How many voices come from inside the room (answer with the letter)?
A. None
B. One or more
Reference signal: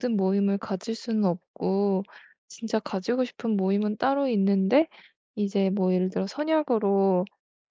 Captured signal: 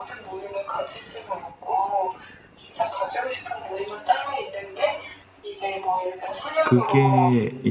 B